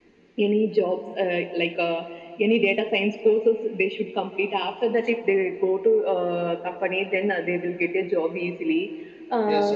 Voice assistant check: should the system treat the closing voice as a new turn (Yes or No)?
Yes